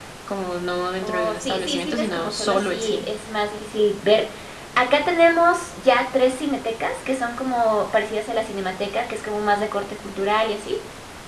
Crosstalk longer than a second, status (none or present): present